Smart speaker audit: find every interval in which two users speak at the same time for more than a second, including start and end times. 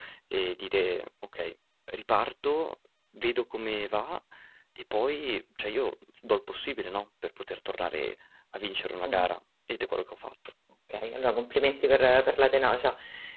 none

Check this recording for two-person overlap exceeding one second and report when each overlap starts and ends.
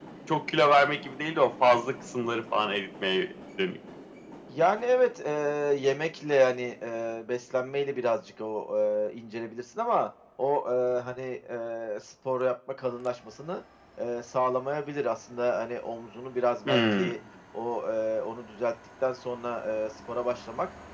none

